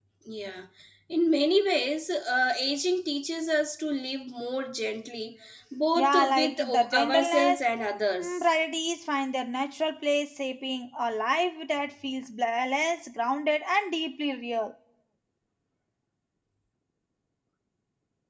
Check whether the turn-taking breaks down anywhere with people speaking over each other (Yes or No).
Yes